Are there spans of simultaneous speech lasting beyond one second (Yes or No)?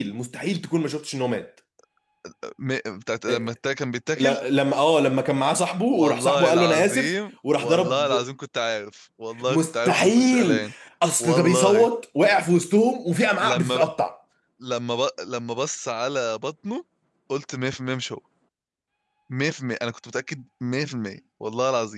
Yes